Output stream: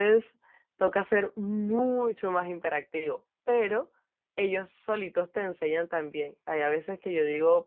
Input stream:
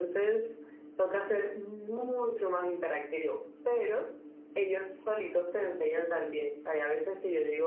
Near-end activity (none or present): none